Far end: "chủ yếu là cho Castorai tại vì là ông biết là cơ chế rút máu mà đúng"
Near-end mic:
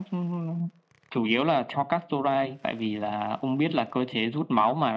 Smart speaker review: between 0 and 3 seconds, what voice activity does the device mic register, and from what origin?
echo only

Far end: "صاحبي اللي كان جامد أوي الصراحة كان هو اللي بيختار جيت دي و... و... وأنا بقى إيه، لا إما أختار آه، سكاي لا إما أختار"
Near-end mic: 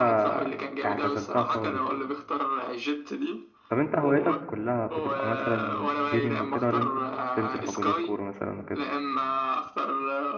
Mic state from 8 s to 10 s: both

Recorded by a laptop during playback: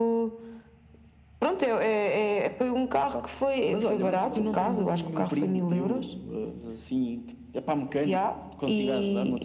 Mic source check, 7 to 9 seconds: echo only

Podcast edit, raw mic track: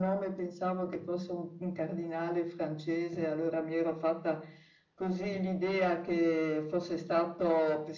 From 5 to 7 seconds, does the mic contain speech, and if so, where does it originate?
echo only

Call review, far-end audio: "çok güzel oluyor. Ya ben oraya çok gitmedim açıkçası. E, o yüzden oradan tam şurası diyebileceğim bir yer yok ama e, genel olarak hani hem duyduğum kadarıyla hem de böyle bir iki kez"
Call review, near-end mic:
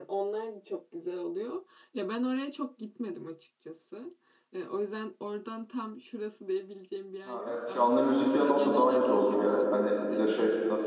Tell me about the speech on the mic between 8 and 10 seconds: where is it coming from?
both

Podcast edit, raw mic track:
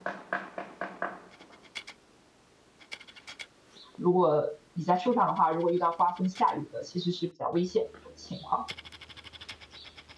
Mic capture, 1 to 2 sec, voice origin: neither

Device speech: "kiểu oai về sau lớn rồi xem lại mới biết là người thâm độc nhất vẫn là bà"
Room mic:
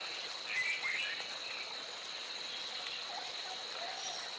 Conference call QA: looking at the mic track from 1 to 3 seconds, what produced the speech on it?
neither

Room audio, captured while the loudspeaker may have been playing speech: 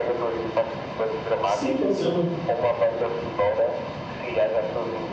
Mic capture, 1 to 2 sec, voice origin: both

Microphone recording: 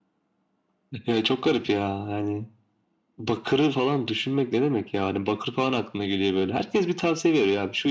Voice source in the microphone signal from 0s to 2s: echo only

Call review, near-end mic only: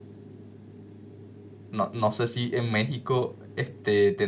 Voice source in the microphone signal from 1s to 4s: user only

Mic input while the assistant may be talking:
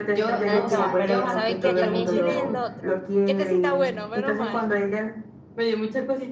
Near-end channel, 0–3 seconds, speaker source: both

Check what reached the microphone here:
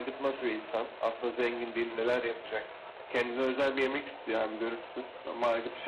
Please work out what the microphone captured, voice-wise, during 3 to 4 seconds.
echo only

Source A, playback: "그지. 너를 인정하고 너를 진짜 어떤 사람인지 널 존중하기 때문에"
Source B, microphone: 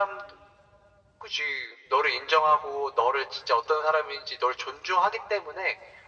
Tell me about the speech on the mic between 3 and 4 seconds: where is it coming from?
echo only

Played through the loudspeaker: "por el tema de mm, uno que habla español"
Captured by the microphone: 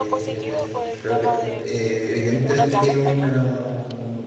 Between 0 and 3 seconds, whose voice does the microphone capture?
both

